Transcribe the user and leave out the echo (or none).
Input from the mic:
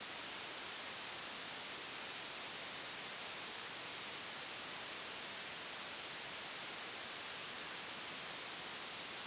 none